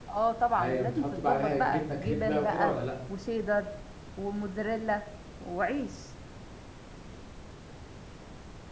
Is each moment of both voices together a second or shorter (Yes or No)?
No